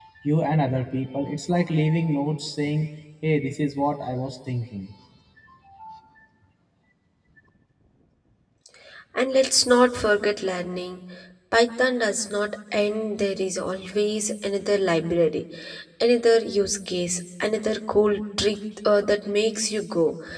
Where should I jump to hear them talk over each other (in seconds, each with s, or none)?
none